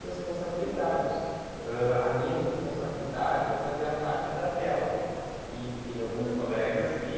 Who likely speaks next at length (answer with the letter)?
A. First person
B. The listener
A